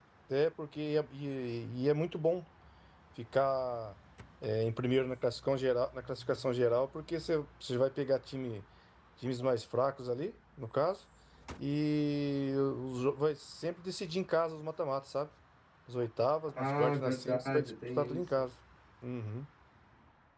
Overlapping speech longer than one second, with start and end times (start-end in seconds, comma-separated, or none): 16.6-18.4